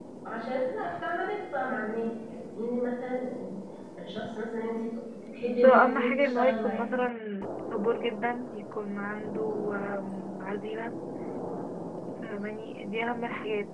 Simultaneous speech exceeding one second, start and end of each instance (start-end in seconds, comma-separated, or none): 5.6-6.8